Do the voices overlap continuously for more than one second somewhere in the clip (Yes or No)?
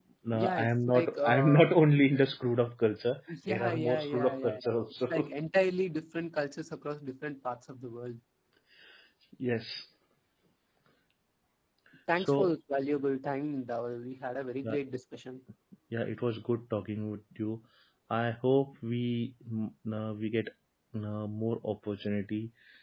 Yes